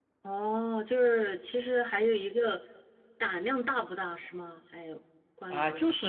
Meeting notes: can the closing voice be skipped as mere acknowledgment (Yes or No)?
No